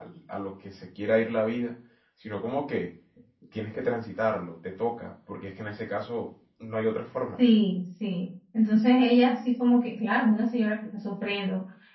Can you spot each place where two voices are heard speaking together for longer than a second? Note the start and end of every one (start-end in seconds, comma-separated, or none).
none